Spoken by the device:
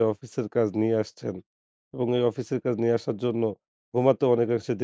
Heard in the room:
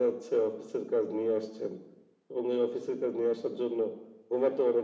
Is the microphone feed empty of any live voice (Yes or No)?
Yes